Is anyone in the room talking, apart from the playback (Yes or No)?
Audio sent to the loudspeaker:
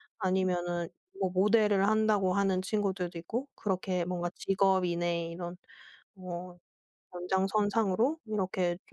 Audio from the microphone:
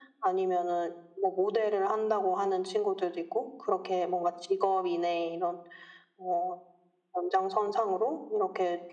No